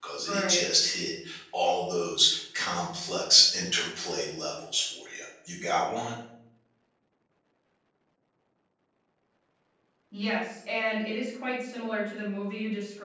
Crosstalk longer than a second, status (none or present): none